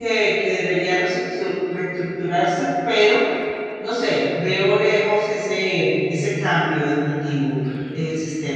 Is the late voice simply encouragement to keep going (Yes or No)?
No